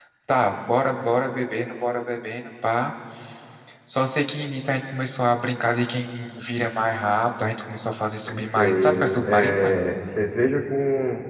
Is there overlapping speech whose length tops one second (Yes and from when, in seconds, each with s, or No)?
Yes, from 8.3 s